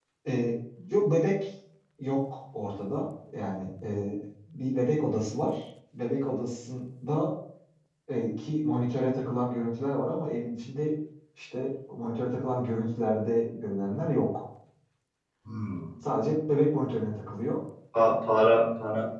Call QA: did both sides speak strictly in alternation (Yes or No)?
Yes